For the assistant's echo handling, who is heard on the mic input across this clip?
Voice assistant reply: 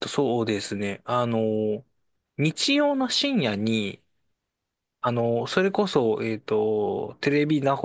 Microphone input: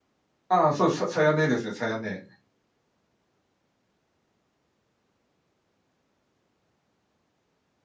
user only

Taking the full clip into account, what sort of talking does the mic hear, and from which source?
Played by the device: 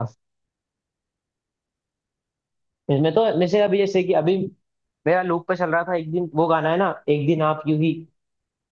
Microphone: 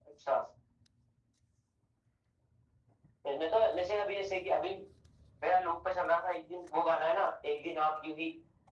echo only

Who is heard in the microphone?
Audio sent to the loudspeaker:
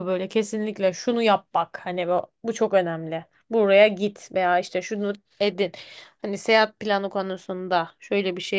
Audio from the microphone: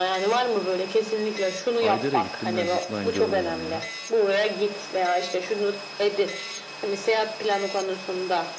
both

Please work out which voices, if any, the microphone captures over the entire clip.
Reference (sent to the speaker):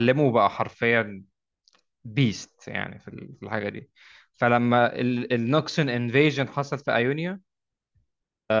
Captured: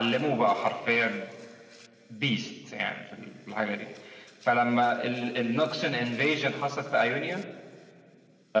echo only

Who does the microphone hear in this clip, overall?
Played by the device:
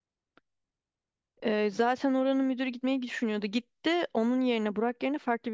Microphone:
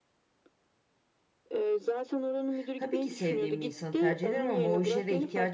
both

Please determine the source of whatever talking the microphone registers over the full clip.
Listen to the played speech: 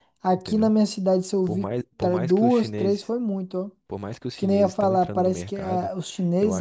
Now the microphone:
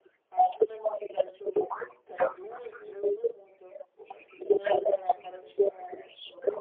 echo only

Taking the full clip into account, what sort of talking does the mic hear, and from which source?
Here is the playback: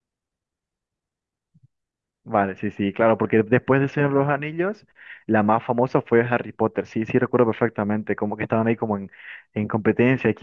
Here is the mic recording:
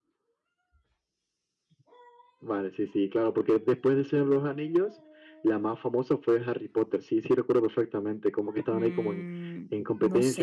both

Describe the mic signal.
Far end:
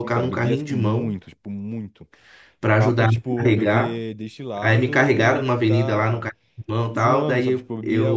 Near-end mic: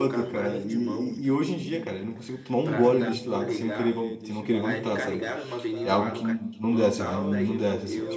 both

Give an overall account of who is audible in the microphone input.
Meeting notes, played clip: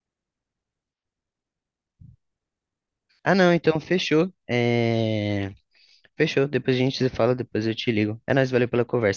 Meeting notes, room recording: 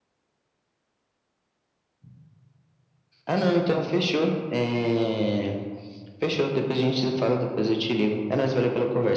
echo only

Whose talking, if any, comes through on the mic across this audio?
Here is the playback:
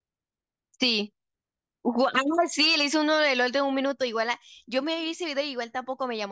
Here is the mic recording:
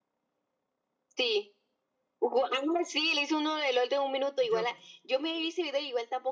both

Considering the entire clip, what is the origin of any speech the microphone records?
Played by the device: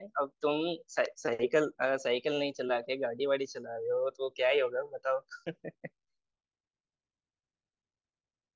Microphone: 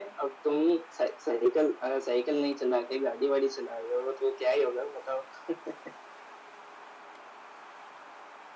echo only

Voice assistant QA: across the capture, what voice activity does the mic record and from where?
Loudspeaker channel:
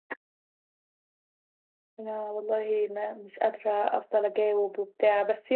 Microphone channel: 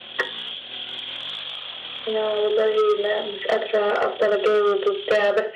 echo only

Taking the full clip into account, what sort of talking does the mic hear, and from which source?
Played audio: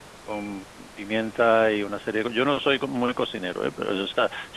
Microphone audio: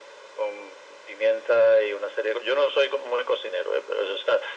echo only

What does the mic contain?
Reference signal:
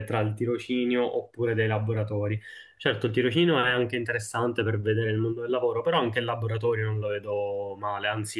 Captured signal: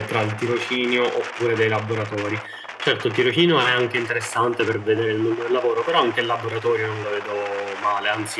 echo only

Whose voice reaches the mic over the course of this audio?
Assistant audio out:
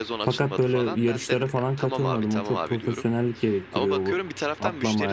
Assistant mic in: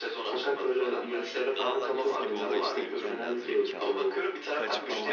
both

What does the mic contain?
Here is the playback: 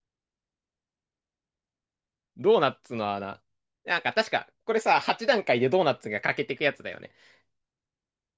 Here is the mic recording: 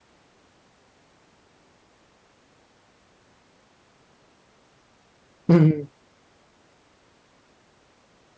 user only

